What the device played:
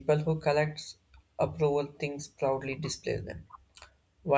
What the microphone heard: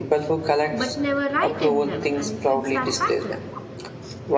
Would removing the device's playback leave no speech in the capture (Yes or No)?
No